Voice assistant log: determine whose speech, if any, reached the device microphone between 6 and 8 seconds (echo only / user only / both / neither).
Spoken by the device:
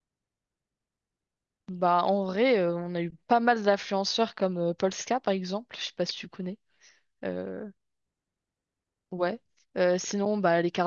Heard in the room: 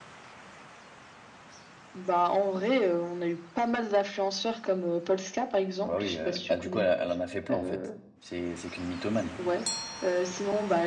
both